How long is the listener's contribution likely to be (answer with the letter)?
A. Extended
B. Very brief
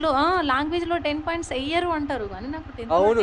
A